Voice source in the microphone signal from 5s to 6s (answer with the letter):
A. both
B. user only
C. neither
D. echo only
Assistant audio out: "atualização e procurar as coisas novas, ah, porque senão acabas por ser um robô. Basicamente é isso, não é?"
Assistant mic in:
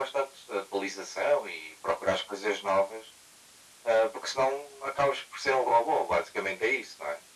D